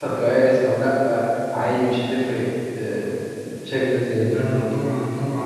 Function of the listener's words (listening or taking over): taking over